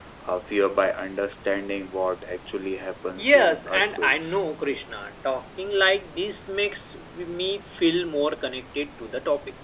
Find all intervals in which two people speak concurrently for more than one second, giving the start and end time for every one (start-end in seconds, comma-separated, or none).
3.2-4.4